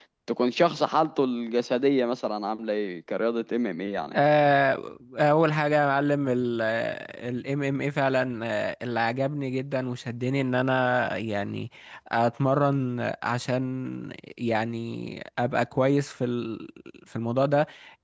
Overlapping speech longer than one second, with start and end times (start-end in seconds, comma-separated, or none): none